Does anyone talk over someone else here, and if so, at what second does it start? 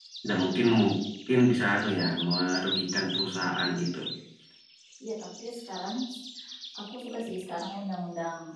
none

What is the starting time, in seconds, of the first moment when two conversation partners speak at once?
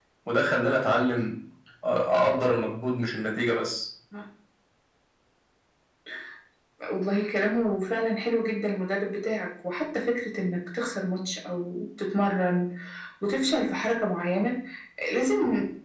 none

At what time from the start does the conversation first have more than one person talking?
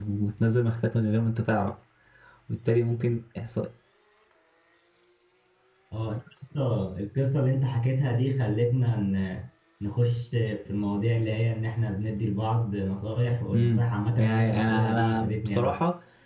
13.5 s

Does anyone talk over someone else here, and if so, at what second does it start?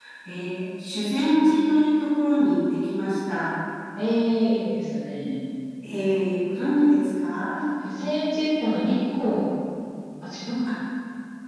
none

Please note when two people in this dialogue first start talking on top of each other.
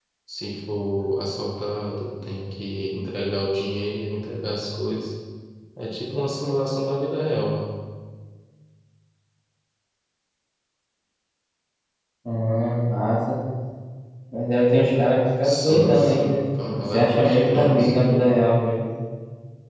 15.4 s

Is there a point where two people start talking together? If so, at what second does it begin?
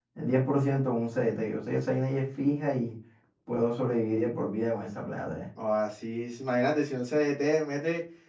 none

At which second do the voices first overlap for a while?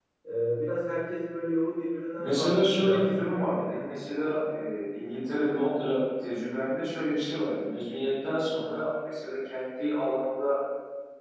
2.2 s

